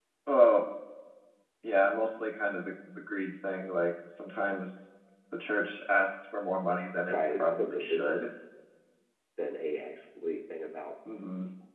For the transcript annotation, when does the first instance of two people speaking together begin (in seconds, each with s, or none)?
7.1 s